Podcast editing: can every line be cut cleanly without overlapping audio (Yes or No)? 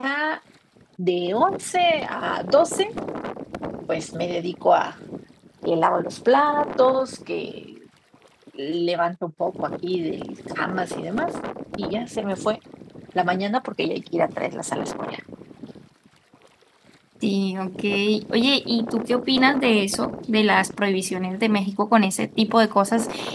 Yes